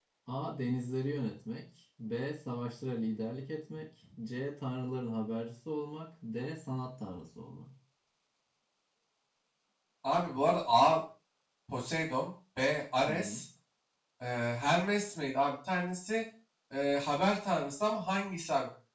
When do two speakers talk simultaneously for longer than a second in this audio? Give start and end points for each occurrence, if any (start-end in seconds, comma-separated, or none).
none